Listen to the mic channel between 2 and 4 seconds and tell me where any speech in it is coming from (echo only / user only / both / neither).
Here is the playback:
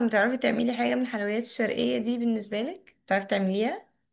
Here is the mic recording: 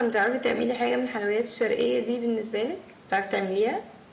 echo only